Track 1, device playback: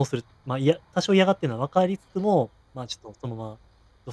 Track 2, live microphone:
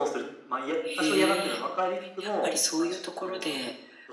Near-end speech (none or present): present